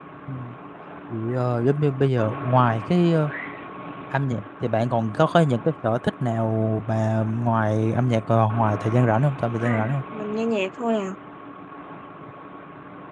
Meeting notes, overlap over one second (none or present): none